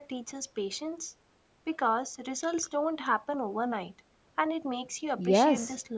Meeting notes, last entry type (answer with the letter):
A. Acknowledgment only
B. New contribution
B